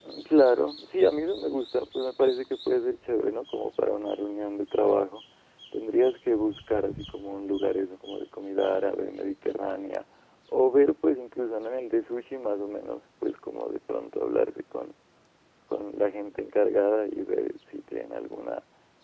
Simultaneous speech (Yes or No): No